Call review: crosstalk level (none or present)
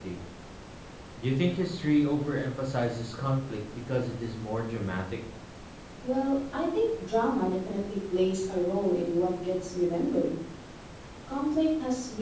none